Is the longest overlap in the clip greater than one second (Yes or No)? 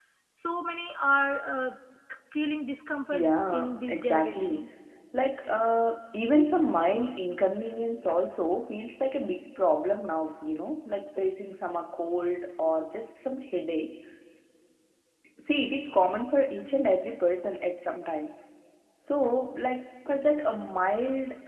Yes